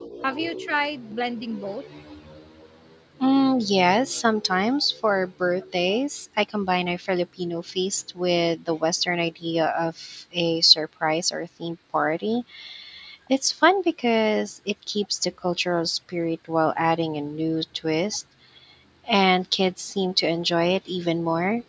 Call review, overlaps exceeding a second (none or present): none